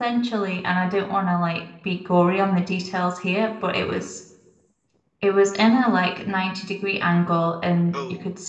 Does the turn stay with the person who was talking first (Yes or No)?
Yes